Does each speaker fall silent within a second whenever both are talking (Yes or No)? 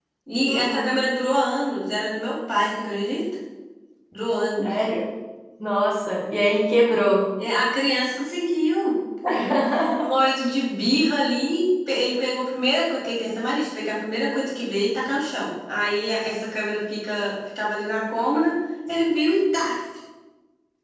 Yes